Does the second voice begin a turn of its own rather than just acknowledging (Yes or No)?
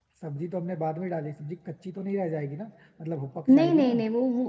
Yes